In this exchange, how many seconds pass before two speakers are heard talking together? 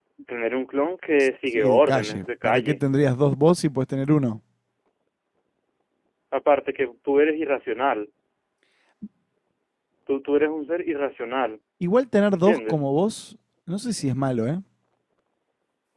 2 s

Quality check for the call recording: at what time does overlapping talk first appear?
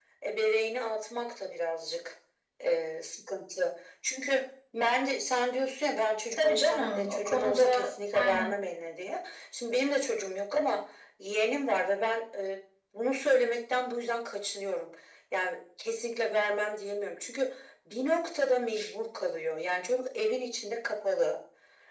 6 s

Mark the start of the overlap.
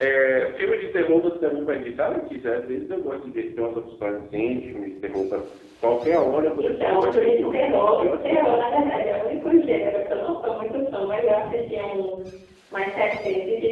7 s

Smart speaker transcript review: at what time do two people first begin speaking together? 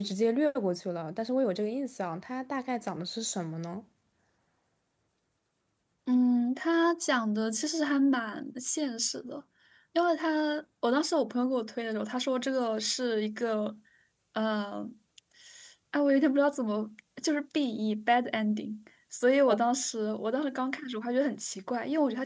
none

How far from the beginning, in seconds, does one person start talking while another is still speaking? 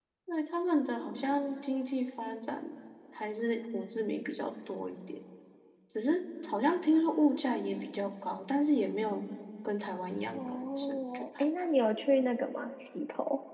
10 s

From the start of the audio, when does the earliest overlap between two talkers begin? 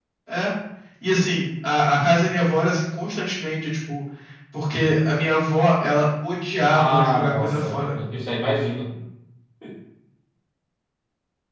7 s

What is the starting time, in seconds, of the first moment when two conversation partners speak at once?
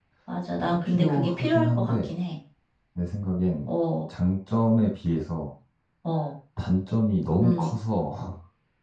1 s

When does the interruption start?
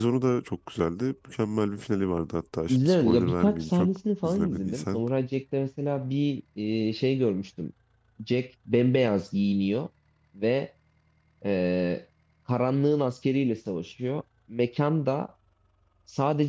3 s

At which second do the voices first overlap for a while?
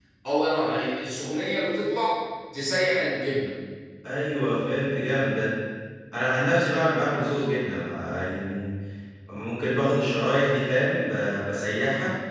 none

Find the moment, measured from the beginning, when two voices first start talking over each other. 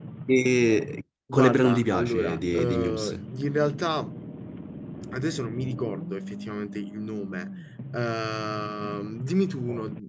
1 s

